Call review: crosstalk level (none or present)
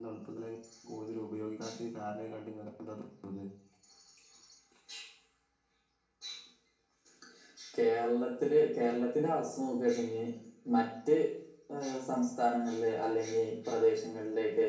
none